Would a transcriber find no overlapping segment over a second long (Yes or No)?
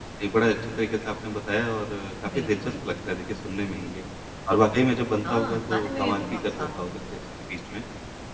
No